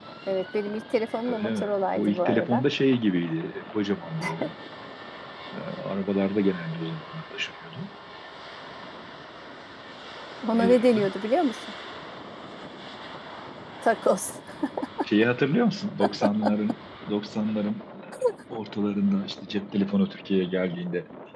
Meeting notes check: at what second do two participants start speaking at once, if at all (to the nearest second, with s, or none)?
1 s